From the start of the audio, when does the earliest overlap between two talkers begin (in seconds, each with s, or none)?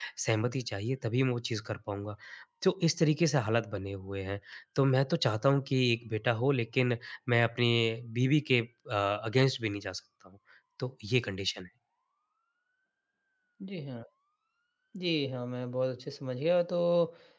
none